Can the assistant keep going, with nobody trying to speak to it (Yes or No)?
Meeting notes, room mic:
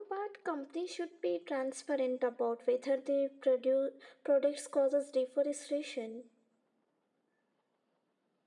Yes